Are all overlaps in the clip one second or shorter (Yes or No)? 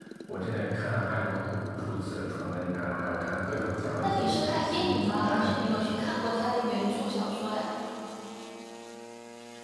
No